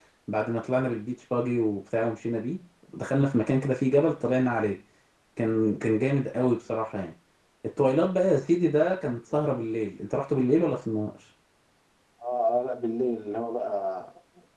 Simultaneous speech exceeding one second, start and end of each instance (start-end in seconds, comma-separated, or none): none